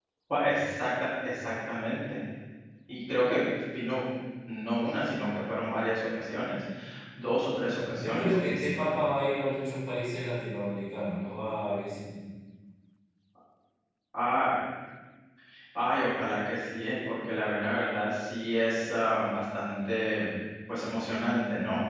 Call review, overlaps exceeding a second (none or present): present